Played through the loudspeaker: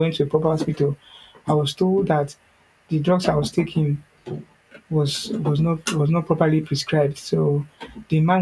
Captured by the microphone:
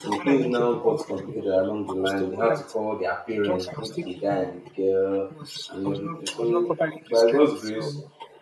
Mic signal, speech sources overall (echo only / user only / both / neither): both